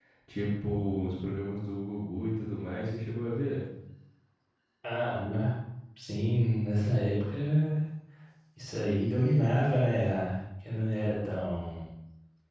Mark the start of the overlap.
none

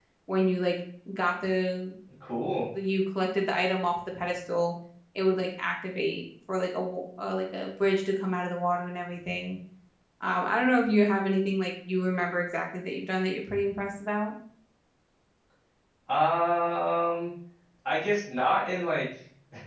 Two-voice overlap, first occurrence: none

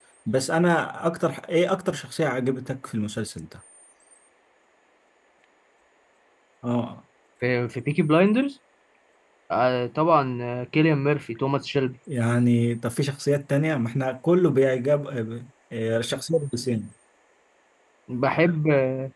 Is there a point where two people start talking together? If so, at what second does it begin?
none

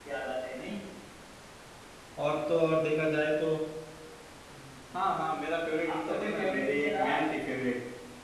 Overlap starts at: 6 s

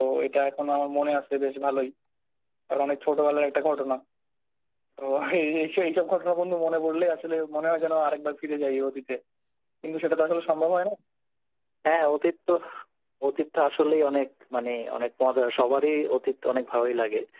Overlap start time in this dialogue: none

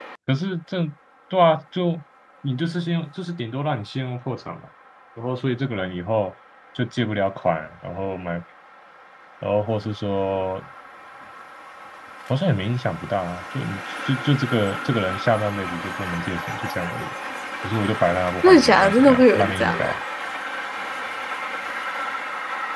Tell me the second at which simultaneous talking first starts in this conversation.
18 s

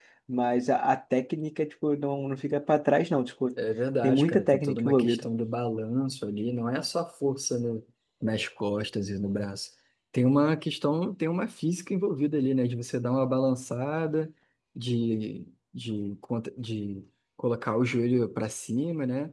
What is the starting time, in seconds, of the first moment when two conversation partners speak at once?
4 s

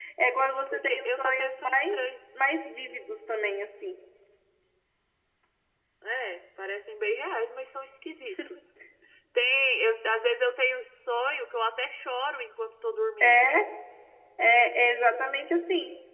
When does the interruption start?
1 s

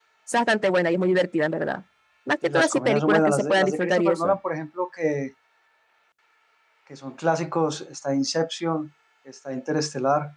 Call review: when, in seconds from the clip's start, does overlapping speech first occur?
2 s

